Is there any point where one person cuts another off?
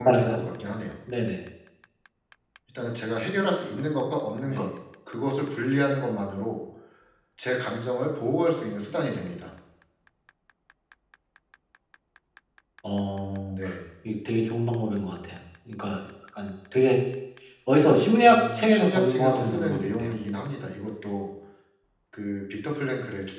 Yes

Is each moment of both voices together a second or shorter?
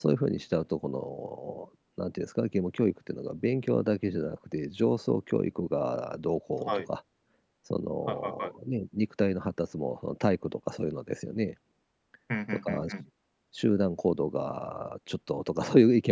Yes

